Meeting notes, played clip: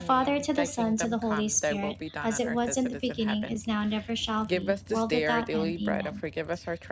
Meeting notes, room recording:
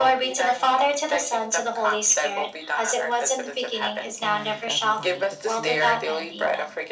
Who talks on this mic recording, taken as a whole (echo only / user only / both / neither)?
both